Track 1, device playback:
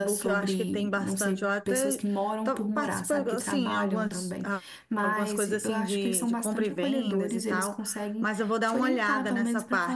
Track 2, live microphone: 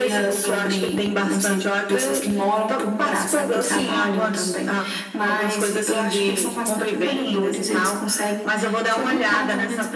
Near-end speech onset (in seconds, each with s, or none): none